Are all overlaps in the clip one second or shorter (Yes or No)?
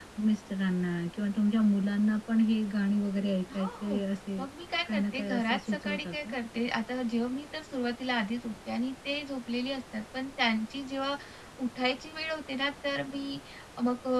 No